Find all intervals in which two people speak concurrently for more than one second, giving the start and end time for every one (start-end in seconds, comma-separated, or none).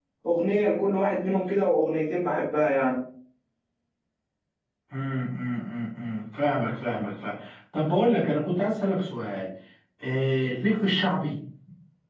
none